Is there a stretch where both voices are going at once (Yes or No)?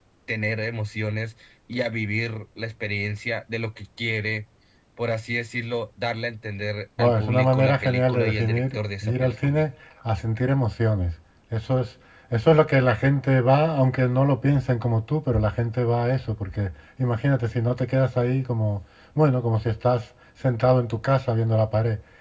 Yes